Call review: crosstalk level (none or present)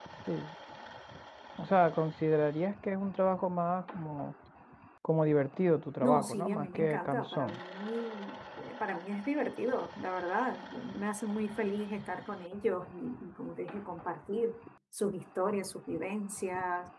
present